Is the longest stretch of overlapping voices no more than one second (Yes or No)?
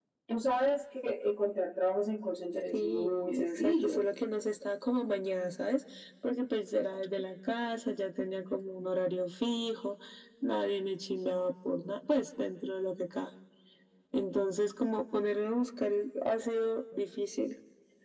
No